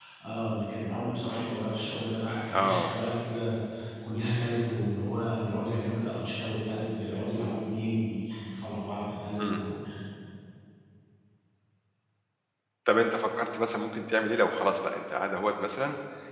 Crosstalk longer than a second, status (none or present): none